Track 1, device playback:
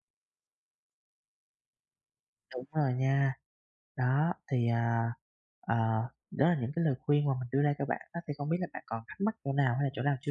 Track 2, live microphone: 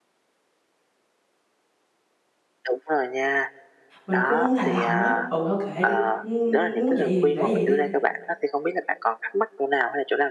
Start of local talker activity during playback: 4.0 s

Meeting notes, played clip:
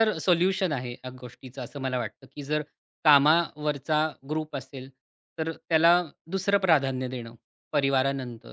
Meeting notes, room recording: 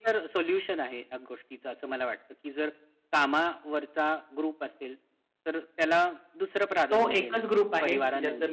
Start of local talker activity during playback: 6.9 s

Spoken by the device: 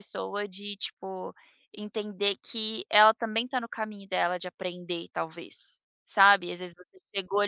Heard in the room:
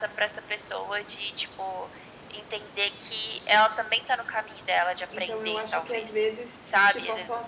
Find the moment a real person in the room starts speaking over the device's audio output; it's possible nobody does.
5.1 s

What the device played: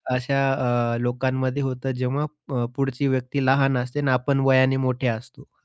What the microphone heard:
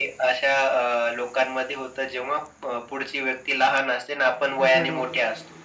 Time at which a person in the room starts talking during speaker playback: 4.6 s

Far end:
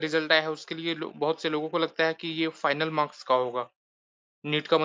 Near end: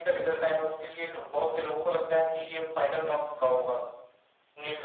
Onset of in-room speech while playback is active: none

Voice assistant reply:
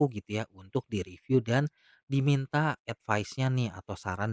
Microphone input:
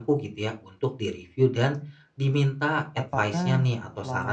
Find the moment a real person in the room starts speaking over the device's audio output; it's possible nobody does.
2.9 s

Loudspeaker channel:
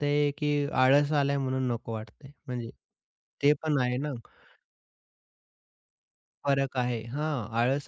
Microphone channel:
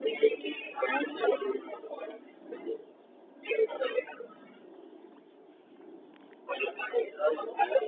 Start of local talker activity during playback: none

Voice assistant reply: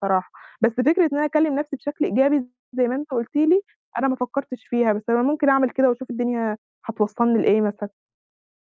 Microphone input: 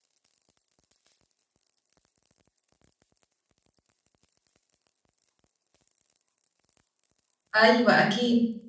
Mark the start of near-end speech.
7.6 s

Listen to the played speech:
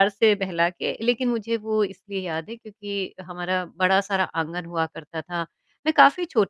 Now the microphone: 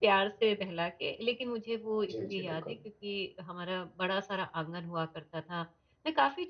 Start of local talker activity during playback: 2.1 s

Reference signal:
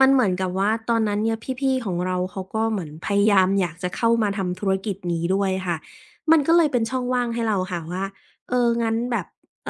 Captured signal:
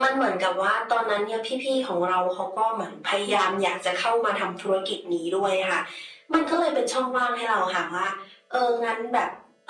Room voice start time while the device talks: none

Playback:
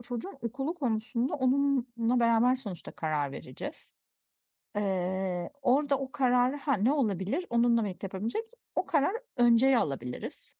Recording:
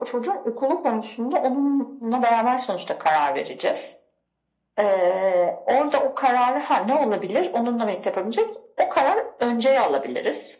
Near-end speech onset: none

